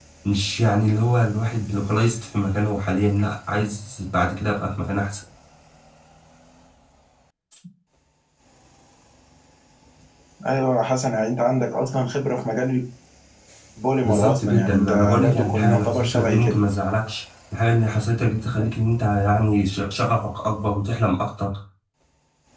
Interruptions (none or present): present